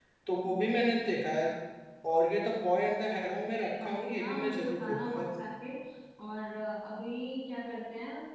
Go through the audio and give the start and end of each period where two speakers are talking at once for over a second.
3.5-5.2

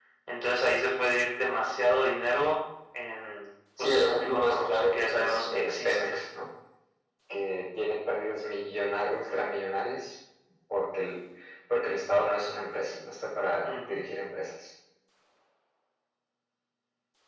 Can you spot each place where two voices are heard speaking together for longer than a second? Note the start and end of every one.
3.8-6.1

